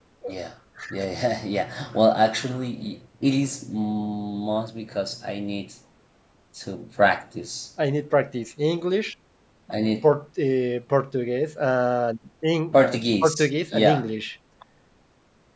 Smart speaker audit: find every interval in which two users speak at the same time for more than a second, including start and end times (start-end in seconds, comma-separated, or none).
12.7-14.0